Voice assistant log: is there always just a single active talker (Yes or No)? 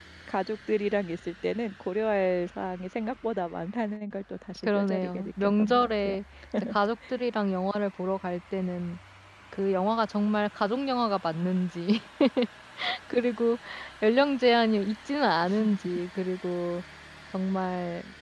No